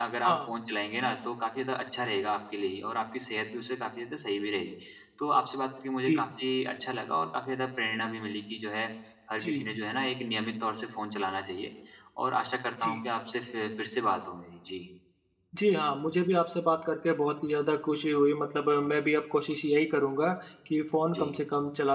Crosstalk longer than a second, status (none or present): none